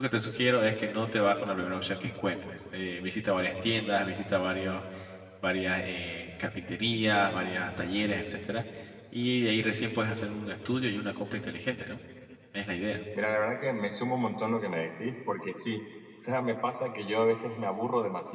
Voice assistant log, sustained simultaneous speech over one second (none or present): none